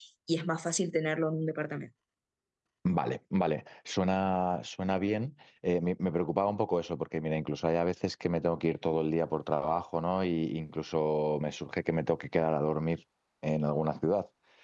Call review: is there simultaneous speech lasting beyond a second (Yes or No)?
No